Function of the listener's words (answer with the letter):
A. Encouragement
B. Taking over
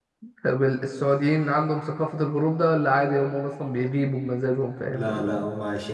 B